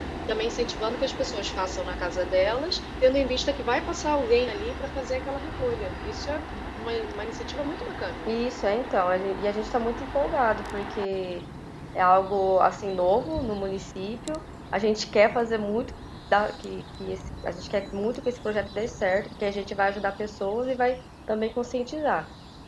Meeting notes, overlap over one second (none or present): none